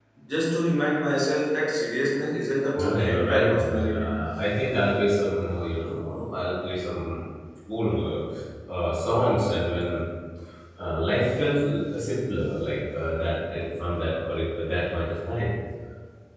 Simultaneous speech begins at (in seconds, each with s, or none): 2.8 s